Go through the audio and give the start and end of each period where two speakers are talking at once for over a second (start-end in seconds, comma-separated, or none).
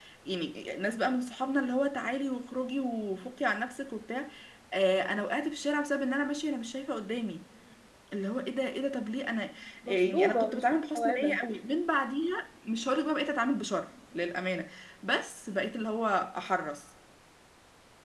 9.9-11.4